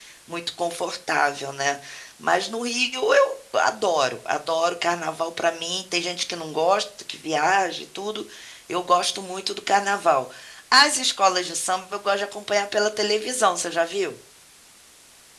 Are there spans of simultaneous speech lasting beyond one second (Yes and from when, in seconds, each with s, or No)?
No